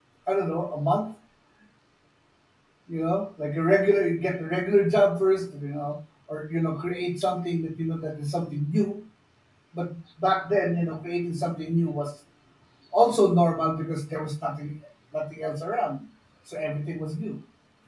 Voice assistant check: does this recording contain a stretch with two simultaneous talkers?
No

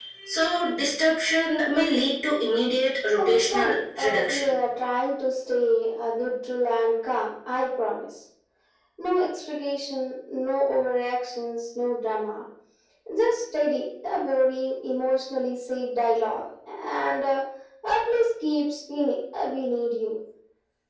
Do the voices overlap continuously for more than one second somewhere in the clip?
Yes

